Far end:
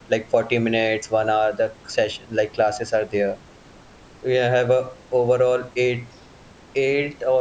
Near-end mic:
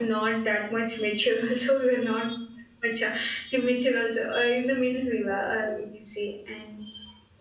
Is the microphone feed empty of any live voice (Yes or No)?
No